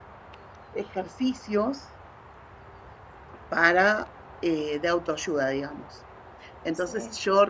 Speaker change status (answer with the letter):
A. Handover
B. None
B